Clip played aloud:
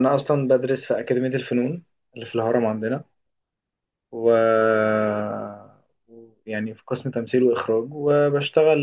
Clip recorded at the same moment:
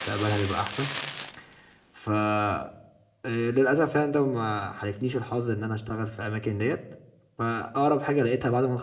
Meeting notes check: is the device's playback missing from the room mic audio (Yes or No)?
Yes